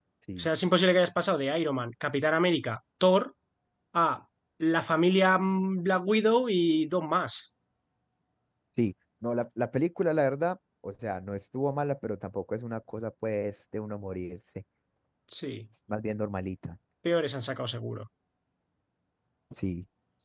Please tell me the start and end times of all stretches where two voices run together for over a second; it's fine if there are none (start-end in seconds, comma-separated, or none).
none